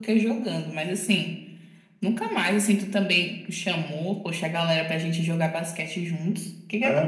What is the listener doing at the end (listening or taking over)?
taking over